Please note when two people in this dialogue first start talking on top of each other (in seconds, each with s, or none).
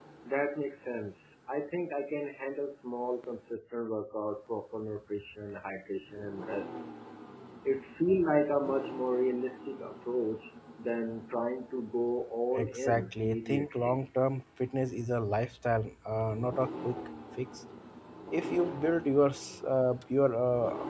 12.6 s